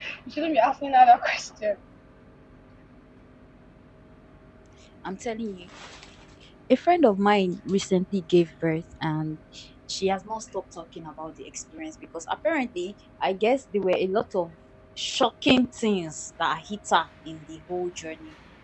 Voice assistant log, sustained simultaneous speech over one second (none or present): none